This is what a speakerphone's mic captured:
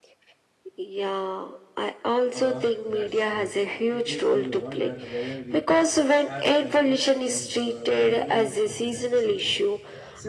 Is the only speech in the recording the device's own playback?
No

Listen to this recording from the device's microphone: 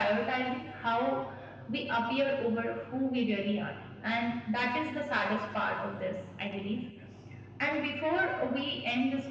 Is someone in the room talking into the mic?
No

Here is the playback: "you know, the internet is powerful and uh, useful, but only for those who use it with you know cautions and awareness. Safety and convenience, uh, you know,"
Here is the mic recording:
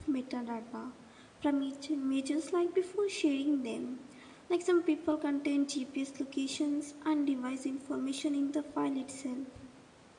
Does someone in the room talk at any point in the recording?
Yes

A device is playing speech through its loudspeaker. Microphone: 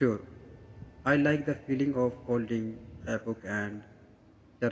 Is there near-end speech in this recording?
Yes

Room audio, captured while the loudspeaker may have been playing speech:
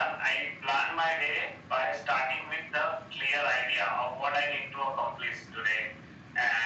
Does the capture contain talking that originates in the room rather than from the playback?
No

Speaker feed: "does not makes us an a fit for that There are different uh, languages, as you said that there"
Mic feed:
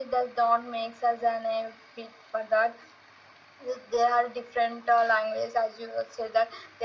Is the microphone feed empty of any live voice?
Yes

